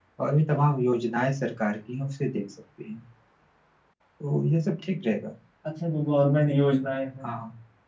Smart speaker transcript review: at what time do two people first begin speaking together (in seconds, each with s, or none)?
none